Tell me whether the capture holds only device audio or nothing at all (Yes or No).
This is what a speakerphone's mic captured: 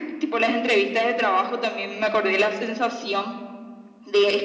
Yes